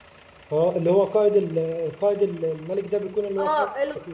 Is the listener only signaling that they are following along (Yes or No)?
No